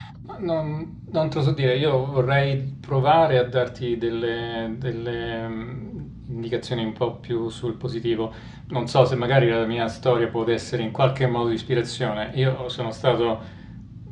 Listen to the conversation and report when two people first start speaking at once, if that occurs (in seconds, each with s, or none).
none